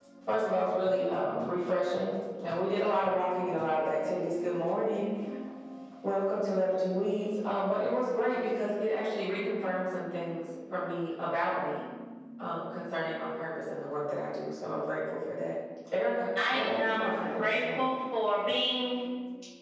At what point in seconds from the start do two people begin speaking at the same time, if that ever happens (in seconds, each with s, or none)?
16.4 s